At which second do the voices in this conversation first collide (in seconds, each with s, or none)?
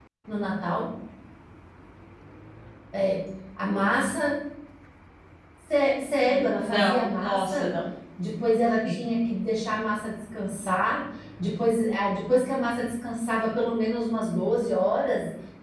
6.2 s